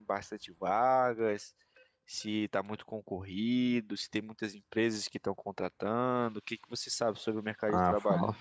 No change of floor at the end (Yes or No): No